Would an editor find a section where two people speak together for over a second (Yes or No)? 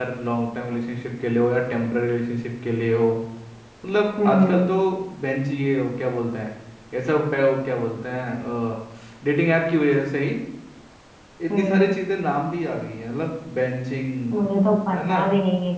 No